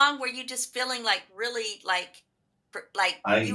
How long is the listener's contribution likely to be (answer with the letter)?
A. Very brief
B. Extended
A